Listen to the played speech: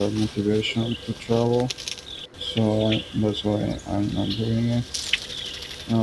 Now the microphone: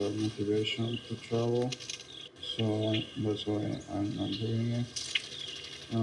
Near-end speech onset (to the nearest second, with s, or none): none